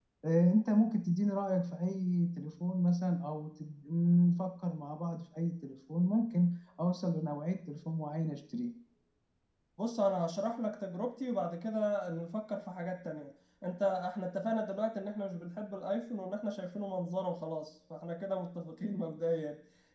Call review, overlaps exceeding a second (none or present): none